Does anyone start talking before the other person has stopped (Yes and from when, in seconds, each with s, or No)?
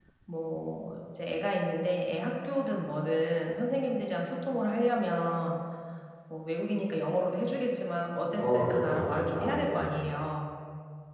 Yes, from 8.3 s